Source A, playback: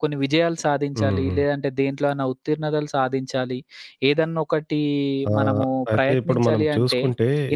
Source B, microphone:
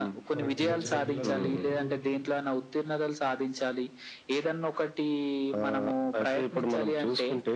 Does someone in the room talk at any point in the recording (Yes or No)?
Yes